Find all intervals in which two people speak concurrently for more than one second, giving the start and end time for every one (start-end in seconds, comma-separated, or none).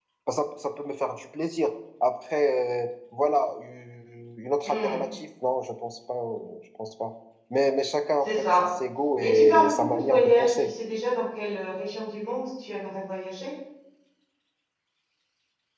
9.2-10.7